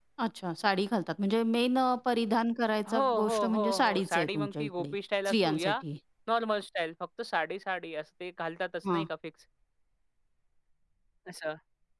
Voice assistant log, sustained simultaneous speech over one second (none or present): present